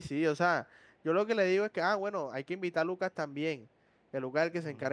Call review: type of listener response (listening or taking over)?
listening